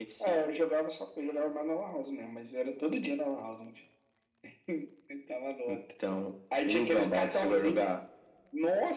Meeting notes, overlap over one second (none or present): present